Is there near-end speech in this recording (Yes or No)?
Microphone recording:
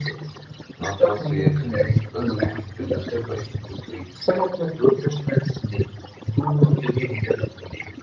Yes